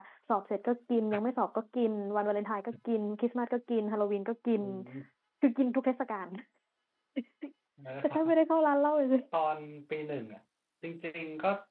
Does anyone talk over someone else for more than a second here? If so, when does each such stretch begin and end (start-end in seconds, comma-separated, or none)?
none